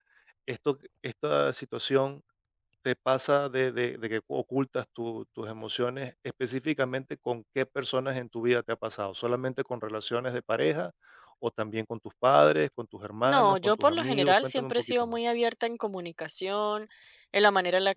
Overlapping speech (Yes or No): Yes